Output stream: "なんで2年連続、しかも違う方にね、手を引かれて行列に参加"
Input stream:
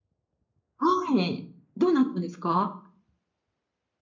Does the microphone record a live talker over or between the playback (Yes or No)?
Yes